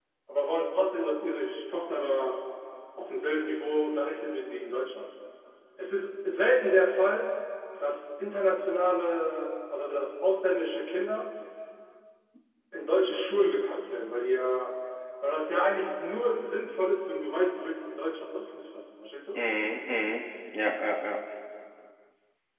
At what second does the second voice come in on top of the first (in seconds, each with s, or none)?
none